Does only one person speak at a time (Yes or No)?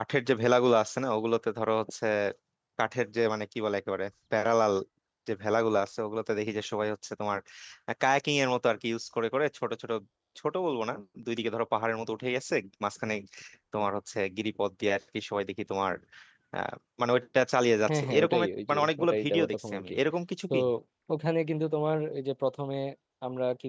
No